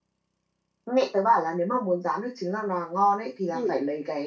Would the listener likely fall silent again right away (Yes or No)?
Yes